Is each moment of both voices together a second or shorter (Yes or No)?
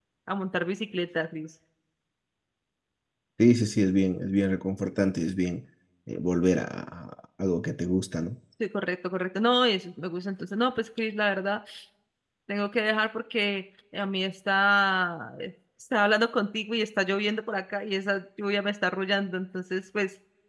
Yes